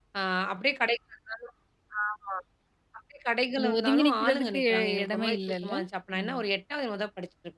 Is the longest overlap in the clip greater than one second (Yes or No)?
Yes